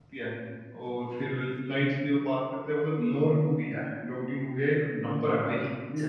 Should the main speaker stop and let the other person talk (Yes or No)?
No